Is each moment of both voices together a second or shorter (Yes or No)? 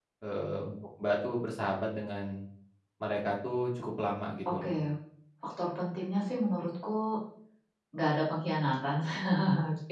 Yes